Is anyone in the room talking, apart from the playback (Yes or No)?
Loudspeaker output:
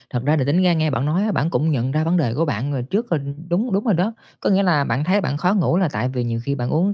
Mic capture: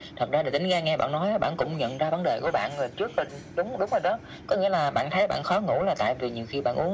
No